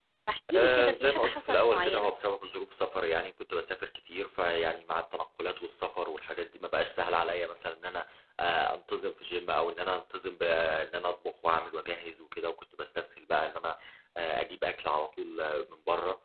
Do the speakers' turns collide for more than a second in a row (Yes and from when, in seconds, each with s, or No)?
Yes, from 0.6 s